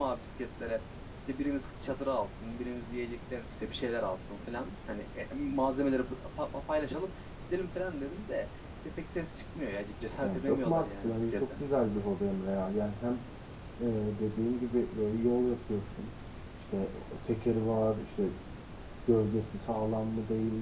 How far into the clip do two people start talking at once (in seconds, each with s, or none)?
10.2 s